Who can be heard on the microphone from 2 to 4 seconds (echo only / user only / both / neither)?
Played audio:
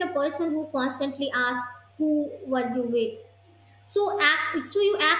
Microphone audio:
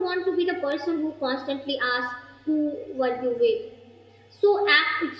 echo only